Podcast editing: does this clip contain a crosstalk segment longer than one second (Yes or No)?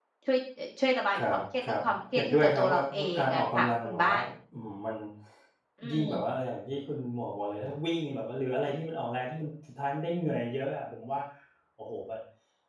Yes